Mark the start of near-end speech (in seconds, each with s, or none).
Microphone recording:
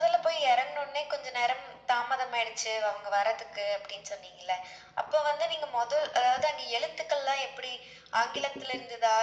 none